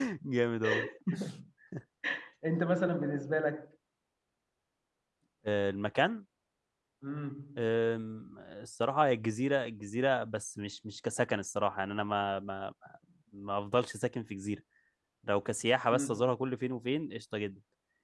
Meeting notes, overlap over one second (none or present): none